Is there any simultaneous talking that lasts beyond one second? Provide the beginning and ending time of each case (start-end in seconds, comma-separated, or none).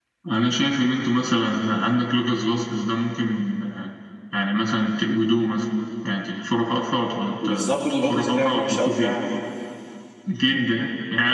7.4-9.1